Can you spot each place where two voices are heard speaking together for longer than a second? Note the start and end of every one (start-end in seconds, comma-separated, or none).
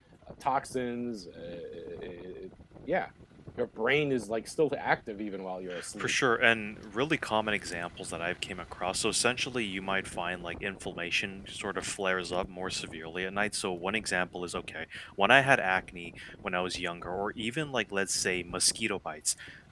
none